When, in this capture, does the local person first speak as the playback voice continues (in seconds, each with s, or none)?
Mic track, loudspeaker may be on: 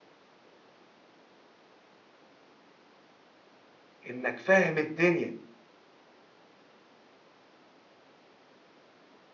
4.0 s